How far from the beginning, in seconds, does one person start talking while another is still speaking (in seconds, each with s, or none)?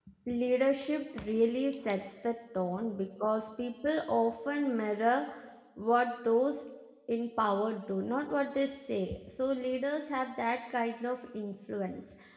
none